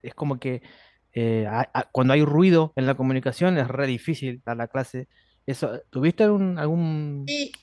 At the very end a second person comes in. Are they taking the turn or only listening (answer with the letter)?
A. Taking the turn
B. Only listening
A